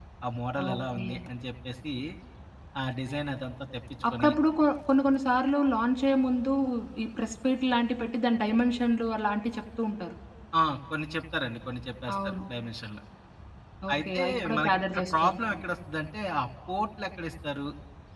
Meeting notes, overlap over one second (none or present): present